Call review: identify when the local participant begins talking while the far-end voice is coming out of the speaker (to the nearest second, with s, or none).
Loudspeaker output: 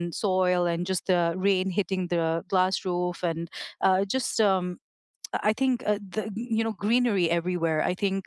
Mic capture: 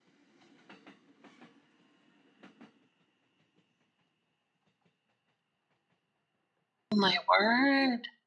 7 s